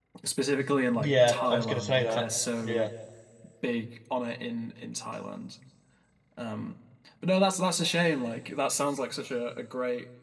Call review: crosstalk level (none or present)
present